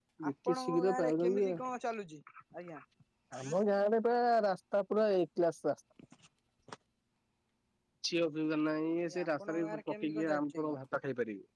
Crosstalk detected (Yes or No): Yes